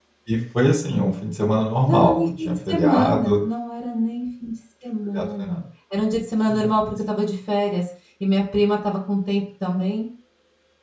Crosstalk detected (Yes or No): Yes